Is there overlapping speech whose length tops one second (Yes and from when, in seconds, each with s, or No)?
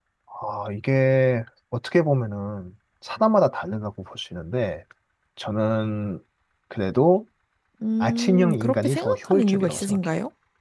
Yes, from 8.0 s